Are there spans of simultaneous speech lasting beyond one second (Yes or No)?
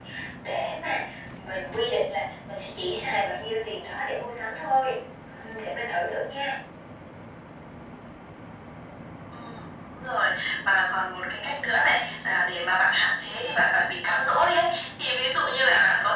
No